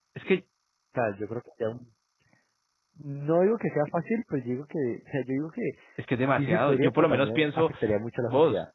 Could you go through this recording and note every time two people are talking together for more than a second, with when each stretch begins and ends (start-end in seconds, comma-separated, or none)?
6.3-7.7